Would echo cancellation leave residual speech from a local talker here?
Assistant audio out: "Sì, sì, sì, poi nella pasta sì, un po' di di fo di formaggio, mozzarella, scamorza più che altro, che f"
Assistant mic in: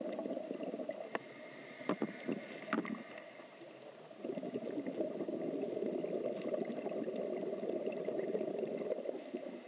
No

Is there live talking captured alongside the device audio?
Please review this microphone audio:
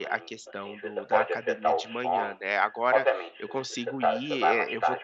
Yes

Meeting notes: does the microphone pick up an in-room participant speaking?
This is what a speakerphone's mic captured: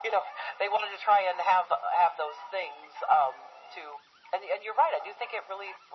No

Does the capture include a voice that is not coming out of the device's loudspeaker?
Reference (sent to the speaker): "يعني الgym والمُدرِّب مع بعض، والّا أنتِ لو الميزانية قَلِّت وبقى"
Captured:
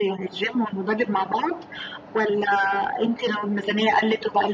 No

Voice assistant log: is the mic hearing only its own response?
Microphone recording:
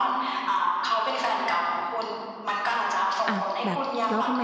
No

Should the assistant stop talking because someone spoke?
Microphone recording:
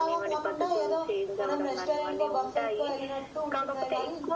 Yes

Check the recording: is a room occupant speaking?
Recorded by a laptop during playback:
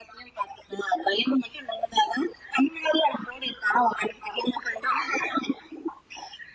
No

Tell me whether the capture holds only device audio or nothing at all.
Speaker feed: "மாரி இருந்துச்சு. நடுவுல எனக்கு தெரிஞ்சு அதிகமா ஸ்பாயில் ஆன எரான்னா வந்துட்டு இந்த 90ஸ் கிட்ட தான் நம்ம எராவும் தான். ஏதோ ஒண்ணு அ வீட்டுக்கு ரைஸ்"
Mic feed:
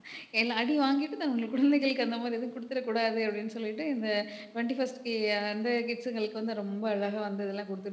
No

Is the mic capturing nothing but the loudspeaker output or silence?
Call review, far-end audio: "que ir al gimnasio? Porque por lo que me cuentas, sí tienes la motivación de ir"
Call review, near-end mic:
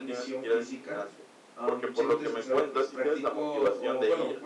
No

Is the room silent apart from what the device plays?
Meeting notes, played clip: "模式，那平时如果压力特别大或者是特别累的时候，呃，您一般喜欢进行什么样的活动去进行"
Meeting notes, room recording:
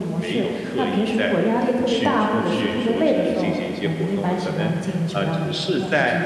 No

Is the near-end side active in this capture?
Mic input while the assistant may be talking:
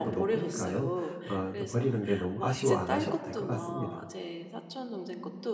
Yes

